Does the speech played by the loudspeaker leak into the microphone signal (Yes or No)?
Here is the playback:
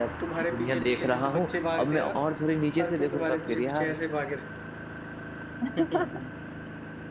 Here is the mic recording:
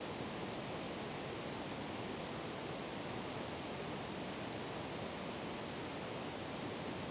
No